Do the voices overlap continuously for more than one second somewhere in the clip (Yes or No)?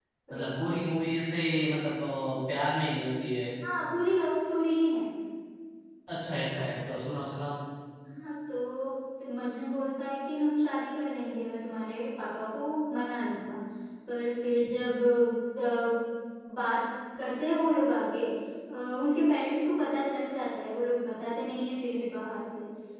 No